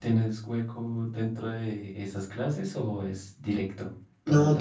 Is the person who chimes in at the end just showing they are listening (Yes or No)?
No